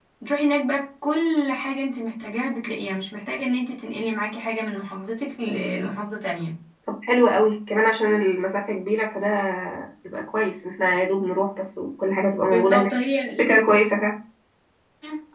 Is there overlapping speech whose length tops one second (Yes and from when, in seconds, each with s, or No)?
No